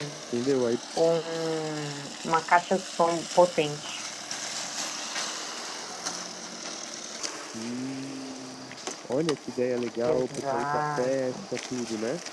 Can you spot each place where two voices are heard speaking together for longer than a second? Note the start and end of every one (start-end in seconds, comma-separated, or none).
10.0-11.4